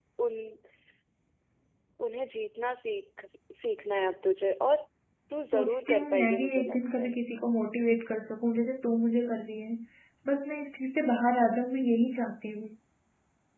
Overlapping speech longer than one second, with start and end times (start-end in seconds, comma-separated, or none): 5.5-7.1